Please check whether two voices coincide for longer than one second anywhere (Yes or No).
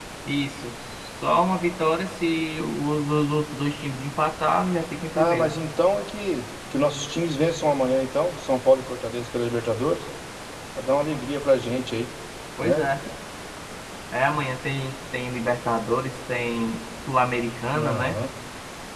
No